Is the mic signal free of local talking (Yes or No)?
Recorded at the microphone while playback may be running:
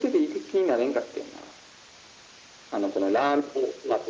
Yes